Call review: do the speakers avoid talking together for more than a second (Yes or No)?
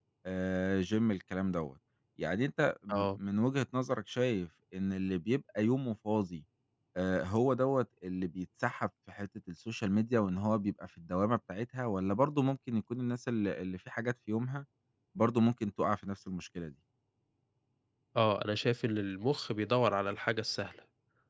Yes